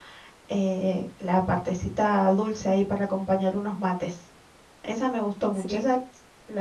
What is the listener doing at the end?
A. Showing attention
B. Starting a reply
A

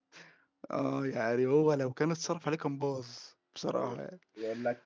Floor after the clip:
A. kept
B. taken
B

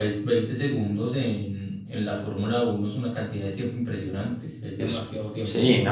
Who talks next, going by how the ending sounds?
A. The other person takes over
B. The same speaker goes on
A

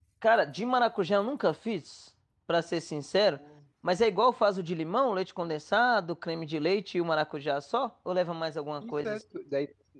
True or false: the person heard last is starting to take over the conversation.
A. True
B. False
A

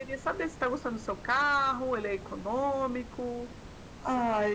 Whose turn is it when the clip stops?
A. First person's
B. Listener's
B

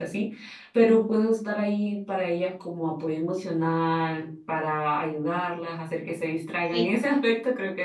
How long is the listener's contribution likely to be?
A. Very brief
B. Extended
A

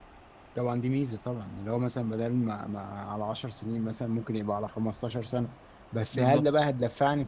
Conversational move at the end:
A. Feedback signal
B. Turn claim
A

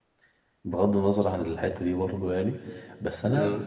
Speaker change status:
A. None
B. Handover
A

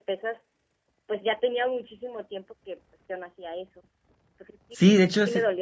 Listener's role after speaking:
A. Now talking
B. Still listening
A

